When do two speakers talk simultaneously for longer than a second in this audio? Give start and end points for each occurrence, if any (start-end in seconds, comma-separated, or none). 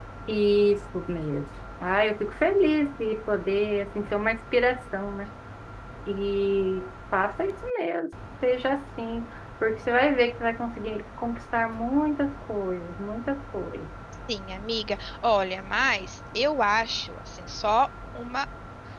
none